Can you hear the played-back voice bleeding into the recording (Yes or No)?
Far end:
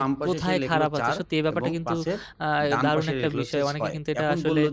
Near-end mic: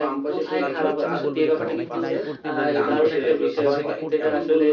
Yes